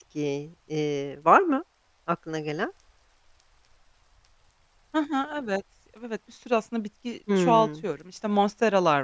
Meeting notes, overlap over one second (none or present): none